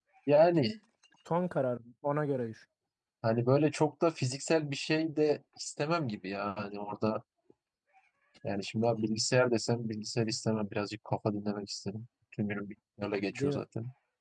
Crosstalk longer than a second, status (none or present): none